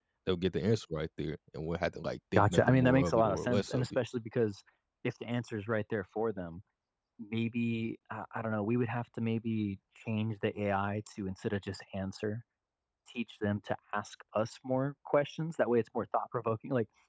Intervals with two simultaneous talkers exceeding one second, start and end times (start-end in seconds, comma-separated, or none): 2.4-4.0